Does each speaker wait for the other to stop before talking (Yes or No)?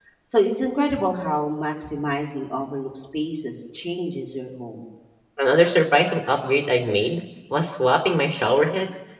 Yes